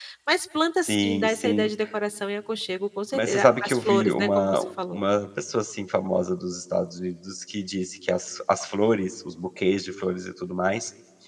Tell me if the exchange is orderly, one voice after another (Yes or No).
No